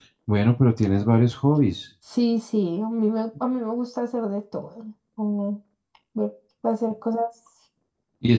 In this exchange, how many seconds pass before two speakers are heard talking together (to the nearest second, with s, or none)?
none